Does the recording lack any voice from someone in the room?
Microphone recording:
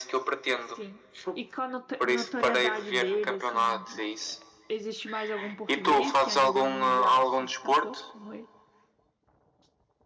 No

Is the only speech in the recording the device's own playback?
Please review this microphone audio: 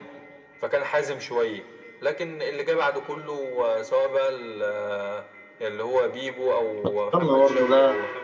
No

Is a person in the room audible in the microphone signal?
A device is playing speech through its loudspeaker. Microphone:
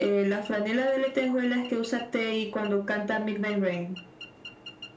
No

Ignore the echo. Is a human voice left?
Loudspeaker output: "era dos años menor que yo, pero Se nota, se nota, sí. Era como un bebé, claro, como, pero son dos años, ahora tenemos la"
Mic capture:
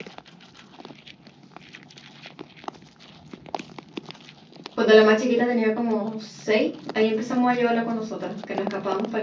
Yes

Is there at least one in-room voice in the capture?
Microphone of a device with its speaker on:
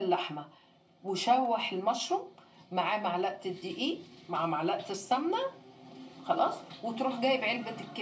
No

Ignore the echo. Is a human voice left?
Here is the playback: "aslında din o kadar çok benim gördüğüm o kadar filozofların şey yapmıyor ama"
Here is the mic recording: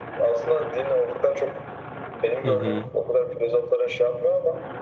Yes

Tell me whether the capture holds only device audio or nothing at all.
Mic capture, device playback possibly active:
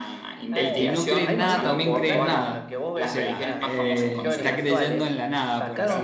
No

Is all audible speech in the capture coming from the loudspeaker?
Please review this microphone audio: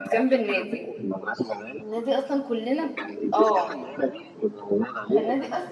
No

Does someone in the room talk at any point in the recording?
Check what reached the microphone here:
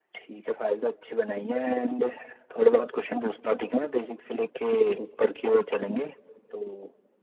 No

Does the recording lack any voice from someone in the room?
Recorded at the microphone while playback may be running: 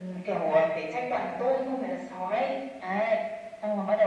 Yes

